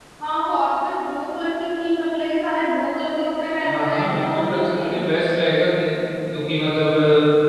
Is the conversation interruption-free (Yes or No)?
No